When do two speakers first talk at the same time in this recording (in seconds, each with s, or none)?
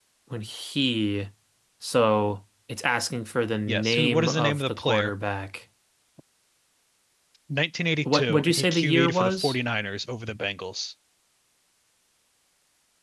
3.7 s